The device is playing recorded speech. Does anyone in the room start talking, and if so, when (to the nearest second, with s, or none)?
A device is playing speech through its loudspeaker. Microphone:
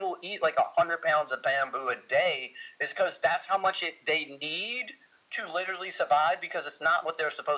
none